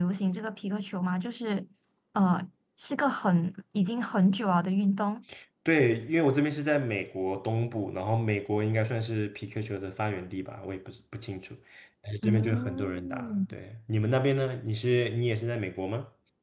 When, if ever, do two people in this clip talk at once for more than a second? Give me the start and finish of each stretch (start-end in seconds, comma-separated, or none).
12.2-13.4